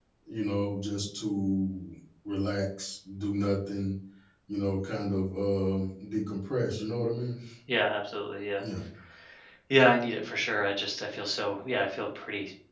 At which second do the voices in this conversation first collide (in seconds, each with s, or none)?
none